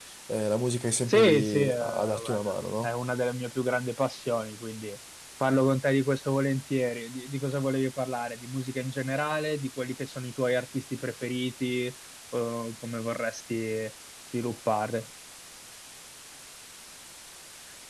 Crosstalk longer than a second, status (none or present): present